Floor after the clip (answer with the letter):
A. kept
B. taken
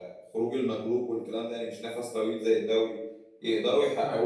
A